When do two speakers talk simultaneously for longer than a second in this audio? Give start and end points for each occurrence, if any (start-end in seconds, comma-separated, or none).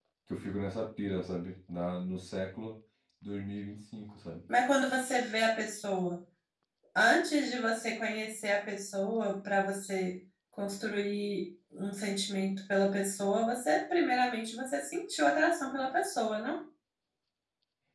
none